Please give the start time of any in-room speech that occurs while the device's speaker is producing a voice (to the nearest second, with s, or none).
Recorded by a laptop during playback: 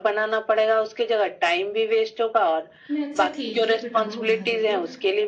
3 s